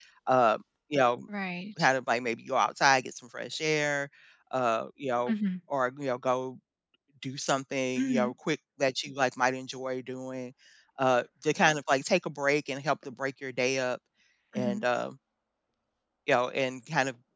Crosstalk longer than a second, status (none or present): none